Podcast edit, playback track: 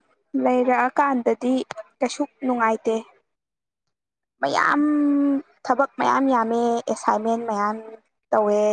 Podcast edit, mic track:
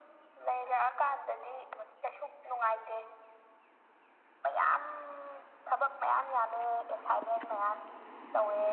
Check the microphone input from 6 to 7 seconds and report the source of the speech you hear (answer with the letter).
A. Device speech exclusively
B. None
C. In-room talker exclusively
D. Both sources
A